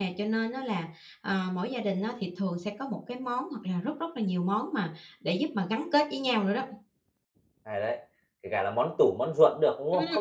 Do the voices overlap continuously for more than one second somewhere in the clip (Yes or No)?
No